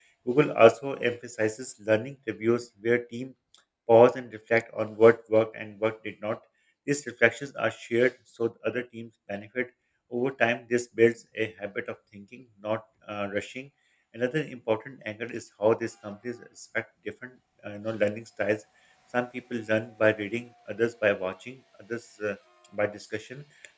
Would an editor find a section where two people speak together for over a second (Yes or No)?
No